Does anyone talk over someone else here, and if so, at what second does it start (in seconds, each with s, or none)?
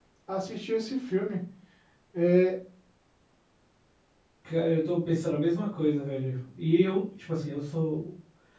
none